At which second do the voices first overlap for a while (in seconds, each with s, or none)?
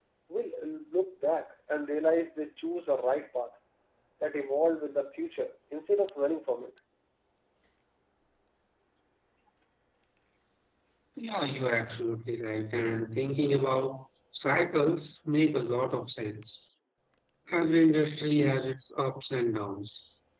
none